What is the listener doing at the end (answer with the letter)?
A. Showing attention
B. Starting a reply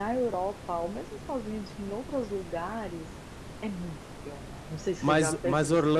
B